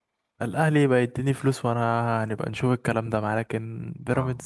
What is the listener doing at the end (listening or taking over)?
taking over